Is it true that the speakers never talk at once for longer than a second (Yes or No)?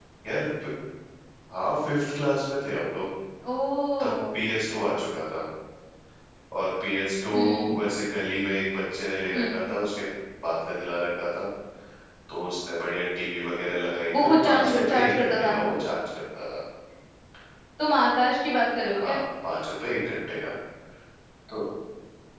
No